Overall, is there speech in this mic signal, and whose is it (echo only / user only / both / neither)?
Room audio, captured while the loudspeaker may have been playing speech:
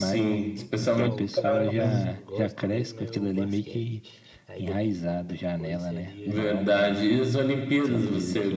both